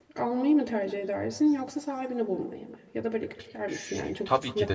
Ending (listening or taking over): taking over